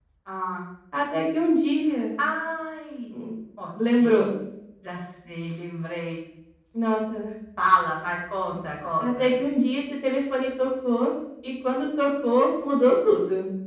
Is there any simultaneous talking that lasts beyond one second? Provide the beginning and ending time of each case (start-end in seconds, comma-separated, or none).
none